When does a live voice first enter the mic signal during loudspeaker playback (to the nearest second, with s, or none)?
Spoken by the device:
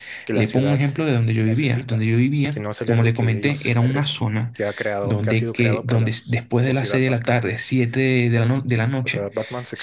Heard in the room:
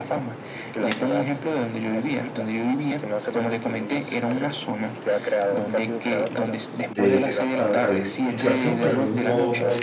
7 s